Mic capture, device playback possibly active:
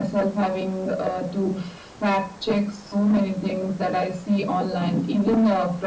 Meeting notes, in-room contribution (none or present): none